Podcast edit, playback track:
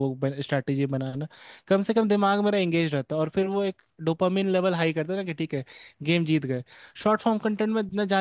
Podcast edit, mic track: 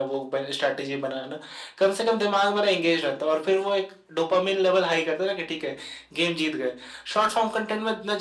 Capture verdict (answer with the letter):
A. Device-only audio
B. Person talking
A